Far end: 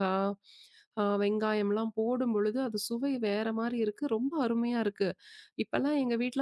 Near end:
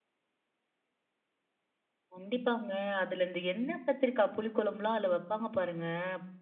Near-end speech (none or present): present